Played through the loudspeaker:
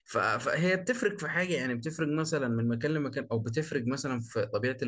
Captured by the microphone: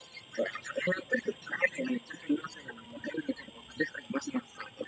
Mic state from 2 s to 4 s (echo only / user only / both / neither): echo only